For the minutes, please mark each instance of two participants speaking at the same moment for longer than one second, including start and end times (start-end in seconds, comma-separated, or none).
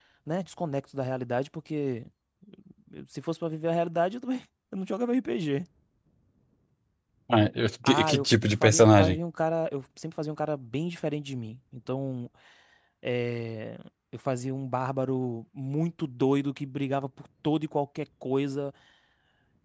7.8-9.2